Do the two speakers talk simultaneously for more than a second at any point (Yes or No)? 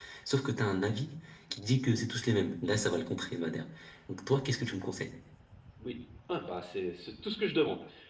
No